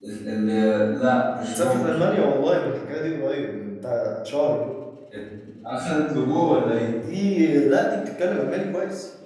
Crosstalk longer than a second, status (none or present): none